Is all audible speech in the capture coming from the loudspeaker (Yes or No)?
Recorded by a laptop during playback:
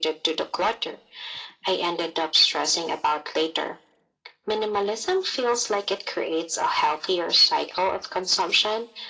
Yes